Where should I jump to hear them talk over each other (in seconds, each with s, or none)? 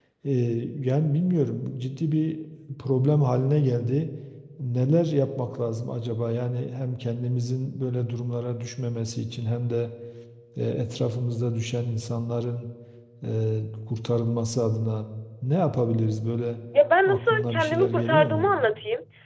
17.1 s